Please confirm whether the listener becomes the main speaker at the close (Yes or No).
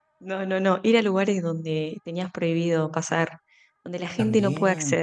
Yes